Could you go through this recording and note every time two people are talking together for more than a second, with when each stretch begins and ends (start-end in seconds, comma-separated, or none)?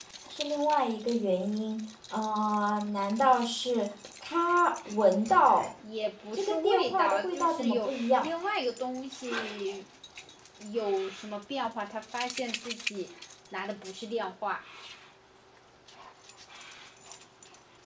6.3-8.3